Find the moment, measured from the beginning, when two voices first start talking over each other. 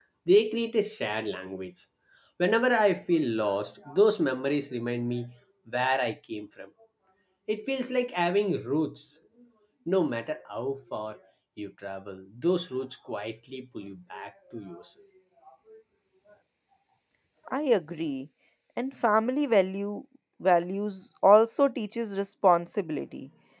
none

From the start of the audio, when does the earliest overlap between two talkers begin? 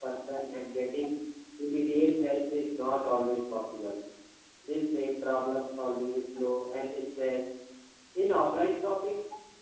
none

